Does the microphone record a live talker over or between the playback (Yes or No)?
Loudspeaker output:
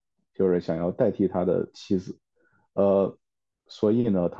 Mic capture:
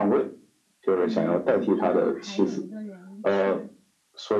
Yes